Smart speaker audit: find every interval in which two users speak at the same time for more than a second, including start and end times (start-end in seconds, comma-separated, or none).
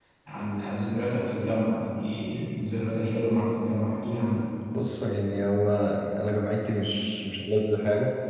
none